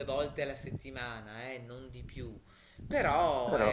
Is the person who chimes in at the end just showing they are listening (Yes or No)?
Yes